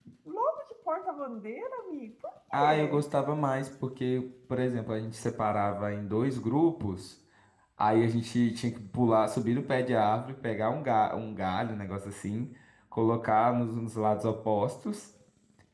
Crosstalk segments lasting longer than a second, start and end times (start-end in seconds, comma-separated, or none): none